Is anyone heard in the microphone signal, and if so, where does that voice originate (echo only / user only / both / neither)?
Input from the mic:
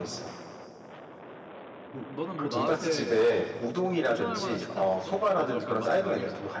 both